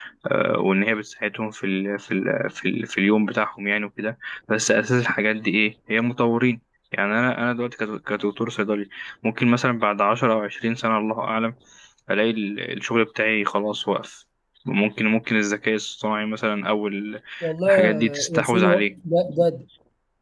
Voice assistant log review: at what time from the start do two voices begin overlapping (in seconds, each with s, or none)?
17.7 s